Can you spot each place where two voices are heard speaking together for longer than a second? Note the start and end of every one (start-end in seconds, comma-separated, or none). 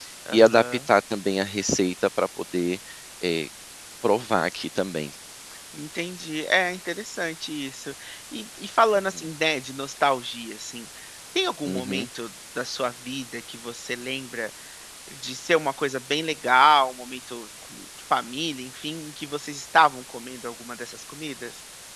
none